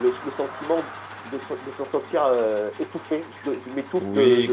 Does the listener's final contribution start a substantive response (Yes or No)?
Yes